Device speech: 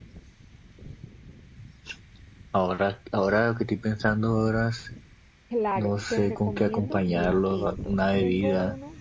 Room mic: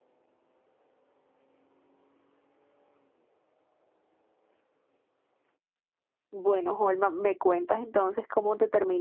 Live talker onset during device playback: 6.3 s

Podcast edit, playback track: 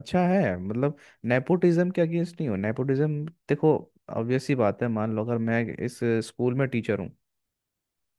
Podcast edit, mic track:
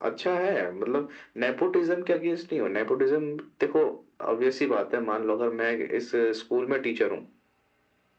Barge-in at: none

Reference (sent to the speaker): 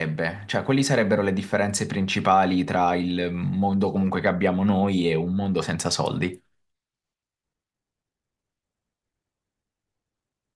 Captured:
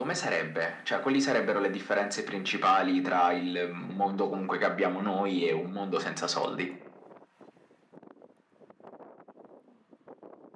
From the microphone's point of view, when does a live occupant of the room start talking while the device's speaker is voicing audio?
none

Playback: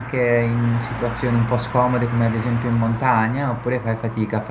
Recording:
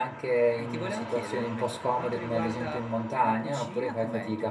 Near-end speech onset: 0.5 s

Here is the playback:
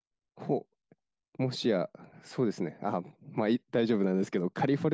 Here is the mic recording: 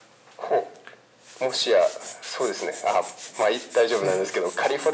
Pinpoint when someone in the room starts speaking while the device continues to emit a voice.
3.9 s

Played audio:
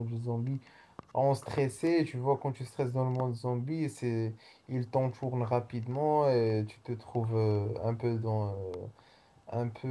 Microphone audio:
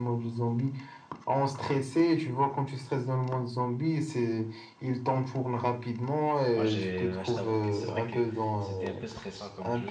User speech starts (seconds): 6.5 s

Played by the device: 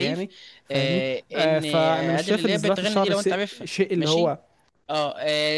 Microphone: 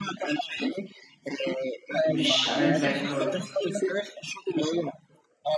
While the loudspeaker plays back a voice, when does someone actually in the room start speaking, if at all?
2.0 s

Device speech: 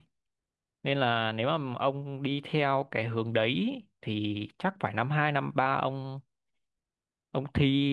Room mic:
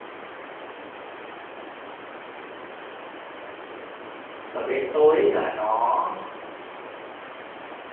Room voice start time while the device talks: 4.5 s

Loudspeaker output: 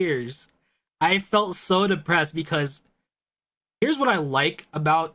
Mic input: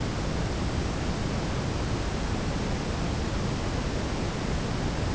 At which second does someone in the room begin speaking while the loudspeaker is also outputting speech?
none

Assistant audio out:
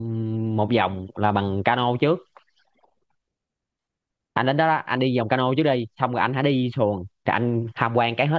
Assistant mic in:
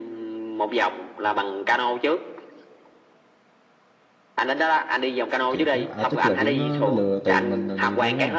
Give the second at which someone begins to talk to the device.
5.5 s

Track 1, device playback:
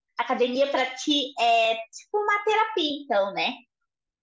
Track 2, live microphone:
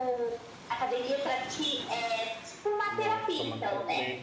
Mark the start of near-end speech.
2.9 s

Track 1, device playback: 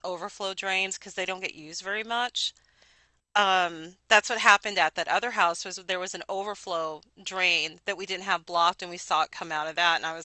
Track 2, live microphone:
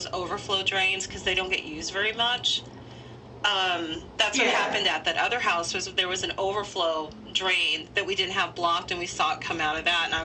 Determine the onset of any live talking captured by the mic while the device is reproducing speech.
4.3 s

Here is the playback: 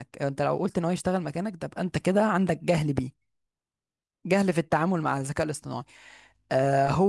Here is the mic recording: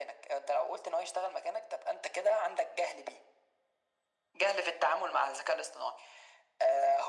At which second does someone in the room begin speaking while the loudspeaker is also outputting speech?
none

